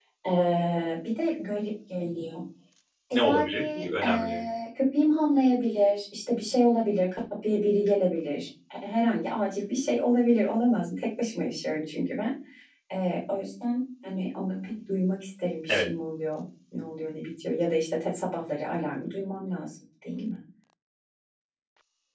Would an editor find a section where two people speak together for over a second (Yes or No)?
Yes